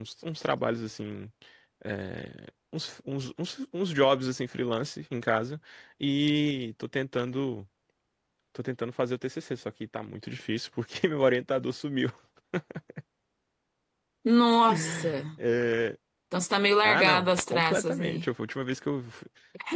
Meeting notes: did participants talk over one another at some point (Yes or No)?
Yes